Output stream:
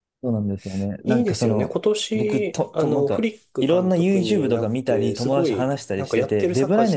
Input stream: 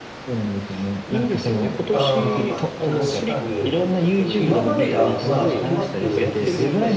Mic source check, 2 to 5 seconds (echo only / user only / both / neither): both